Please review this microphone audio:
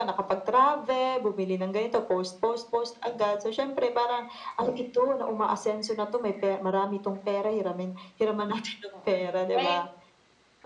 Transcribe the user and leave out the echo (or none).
Oh, hmm, ek